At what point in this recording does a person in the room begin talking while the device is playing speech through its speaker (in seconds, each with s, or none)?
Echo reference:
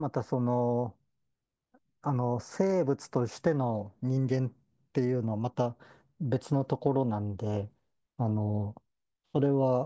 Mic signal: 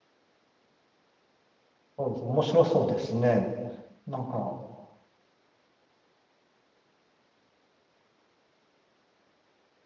2.0 s